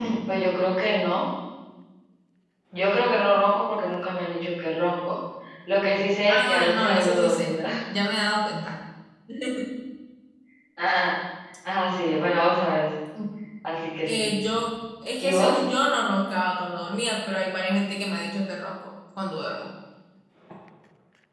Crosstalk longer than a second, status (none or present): present